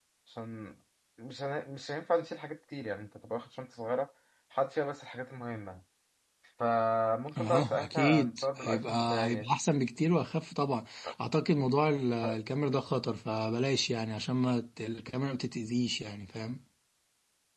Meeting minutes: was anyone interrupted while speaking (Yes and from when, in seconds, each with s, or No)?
Yes, from 7.4 s